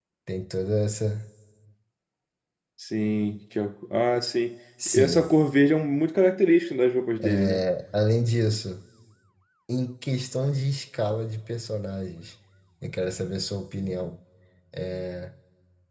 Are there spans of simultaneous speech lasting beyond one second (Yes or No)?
No